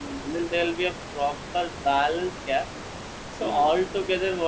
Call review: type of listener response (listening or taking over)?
listening